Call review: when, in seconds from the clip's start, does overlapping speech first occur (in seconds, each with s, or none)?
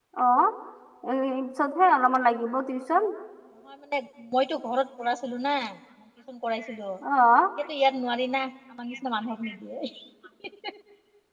none